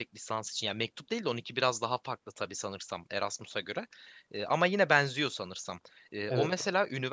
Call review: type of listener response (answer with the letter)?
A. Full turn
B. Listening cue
B